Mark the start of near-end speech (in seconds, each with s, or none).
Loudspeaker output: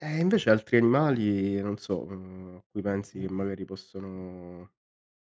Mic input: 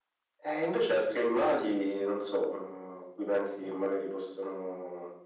none